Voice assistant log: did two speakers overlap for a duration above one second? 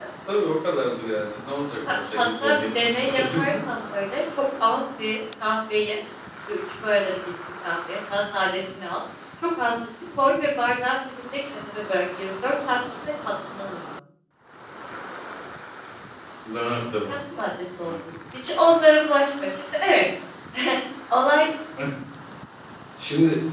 Yes, from 1.9 s

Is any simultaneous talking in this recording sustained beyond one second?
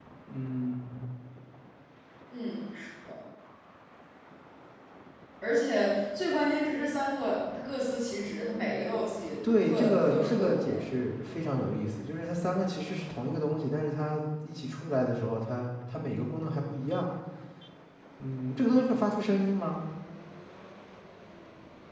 Yes, from 9.4 s

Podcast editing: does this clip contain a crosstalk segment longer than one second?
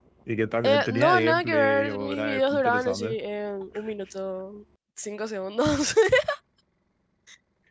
Yes, from 0.6 s

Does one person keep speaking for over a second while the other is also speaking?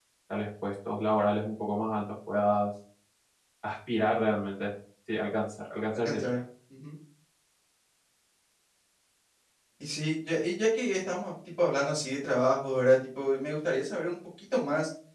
No

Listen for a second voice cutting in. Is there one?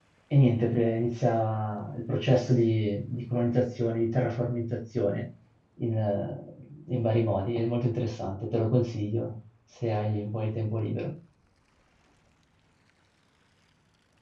No

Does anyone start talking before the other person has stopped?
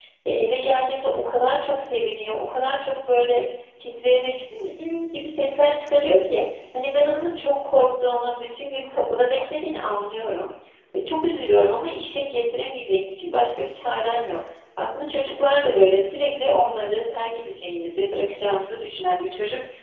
No

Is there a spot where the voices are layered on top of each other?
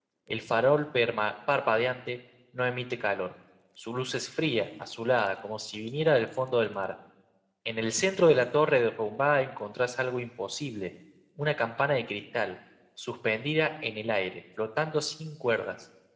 No

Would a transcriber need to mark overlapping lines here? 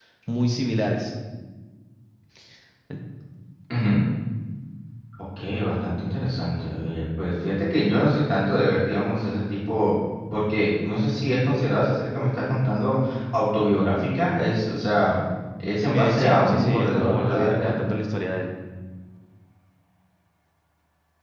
Yes, from 15.9 s

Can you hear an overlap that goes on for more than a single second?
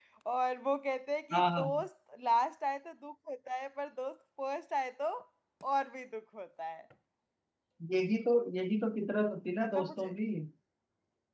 No

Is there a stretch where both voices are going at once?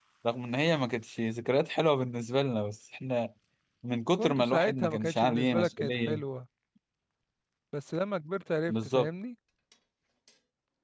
Yes, from 4.2 s

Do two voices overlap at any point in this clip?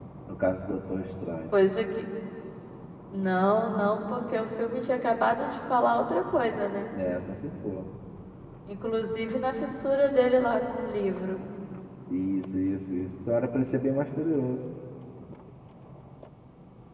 No

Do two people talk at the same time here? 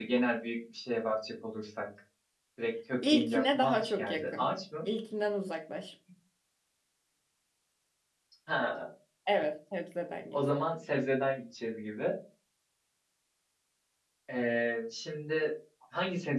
Yes, from 3.1 s

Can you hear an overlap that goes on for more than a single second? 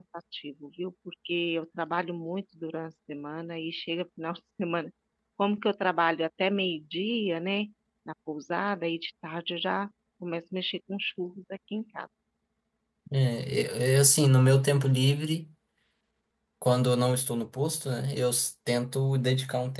No

